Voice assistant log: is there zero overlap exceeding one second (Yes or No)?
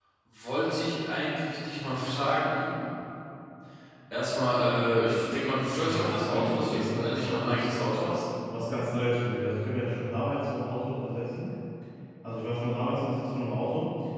No